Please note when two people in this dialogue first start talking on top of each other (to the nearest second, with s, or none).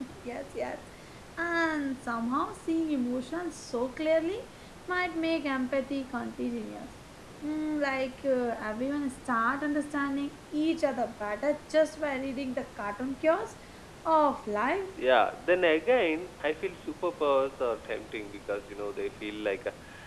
none